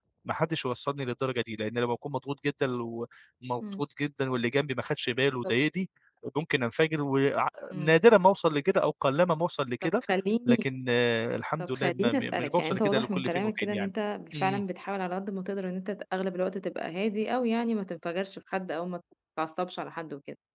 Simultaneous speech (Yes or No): Yes